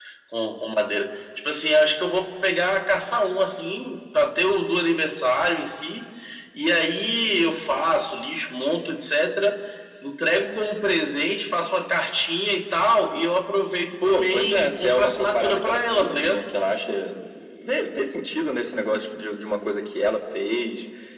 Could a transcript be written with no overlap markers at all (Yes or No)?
No